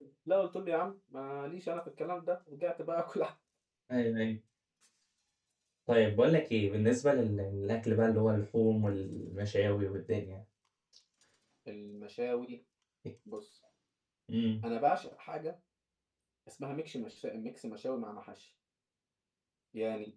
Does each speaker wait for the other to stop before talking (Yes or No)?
Yes